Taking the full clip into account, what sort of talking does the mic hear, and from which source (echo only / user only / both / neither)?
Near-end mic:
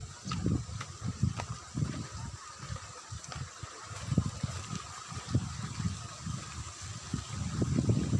neither